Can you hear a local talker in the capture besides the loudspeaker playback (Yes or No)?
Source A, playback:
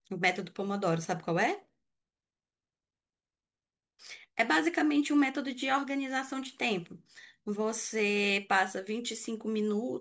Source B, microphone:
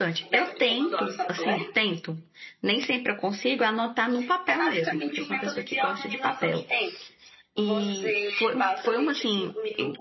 Yes